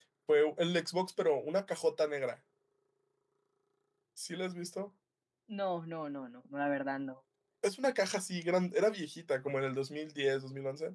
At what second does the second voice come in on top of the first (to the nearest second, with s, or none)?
none